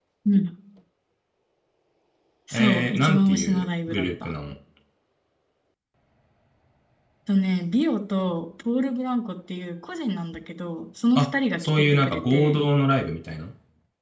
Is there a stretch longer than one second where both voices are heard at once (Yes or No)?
Yes